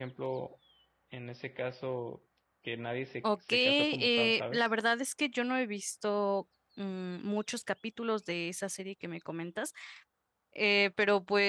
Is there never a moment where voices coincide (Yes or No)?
No